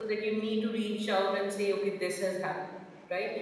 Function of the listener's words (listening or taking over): listening